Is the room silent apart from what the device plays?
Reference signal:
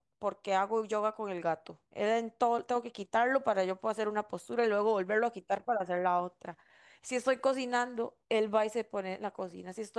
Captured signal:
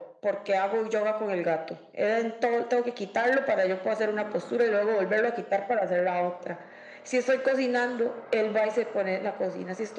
Yes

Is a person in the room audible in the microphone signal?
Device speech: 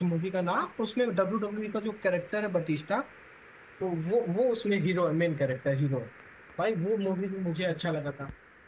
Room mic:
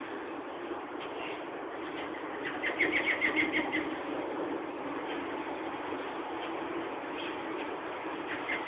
No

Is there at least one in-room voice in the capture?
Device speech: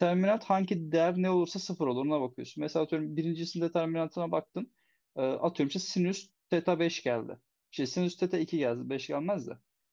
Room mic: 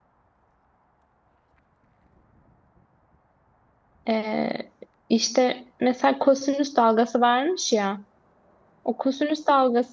Yes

